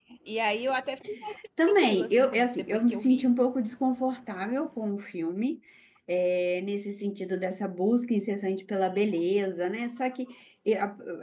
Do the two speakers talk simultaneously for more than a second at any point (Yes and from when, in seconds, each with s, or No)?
Yes, from 1.6 s